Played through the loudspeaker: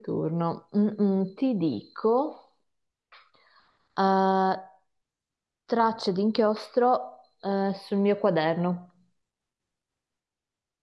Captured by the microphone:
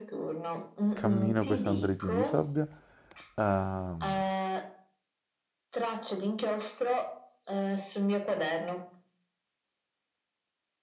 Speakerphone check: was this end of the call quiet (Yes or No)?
No